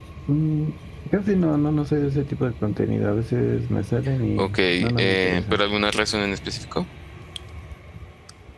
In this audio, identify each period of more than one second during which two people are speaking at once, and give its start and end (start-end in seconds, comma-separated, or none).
4.4-5.6